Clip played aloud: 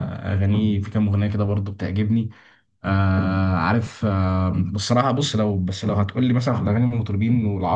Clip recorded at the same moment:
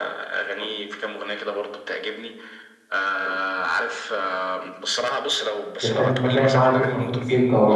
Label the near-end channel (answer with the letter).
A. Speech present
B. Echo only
A